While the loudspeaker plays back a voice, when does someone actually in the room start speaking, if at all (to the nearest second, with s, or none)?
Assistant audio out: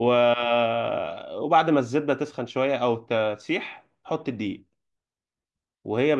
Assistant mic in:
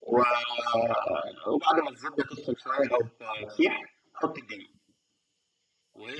none